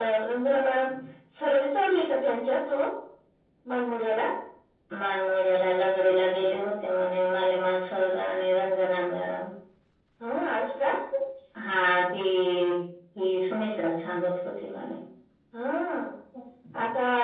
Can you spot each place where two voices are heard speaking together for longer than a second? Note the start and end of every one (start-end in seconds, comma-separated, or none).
none